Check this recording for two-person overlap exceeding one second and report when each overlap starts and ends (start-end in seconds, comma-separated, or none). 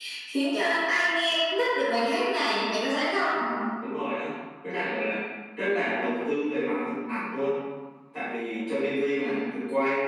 none